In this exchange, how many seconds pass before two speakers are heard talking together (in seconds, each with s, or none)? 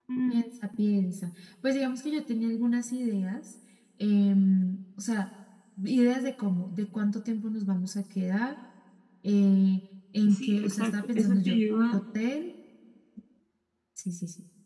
10.2 s